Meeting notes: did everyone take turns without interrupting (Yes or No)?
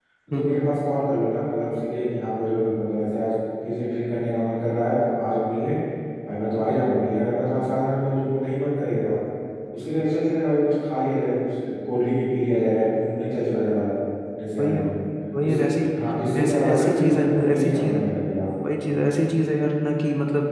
No